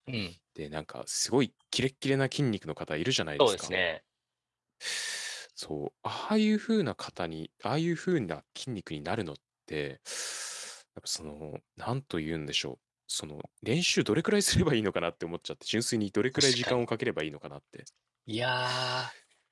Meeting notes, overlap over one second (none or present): none